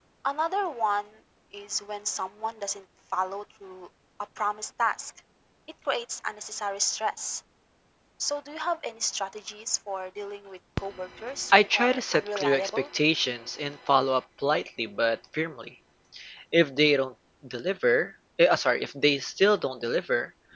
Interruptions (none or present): present